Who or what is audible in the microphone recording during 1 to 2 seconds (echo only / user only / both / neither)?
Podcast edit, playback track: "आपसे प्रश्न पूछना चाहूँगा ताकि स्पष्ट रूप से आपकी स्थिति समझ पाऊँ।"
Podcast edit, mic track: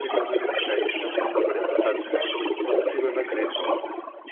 both